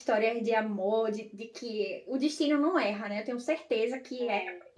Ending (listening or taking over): listening